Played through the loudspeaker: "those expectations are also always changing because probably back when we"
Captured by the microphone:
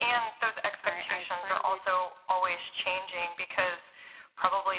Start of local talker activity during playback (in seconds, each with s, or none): 0.8 s